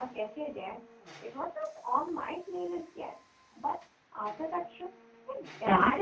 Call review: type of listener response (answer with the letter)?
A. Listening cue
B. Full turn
B